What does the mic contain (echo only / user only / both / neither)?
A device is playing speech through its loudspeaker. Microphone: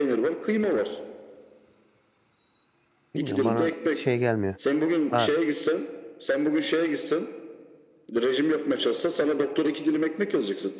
both